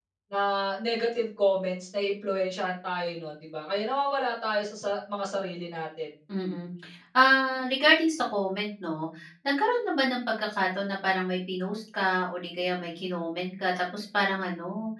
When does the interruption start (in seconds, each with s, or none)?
none